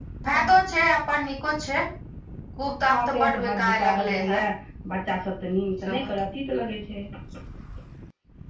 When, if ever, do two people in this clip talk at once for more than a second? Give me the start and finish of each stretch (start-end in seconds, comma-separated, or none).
2.9-4.4